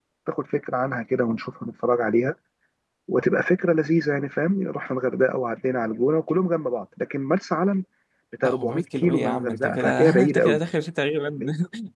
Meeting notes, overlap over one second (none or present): present